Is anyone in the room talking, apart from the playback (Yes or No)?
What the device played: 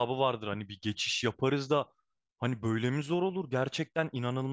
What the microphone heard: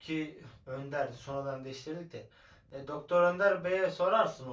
Yes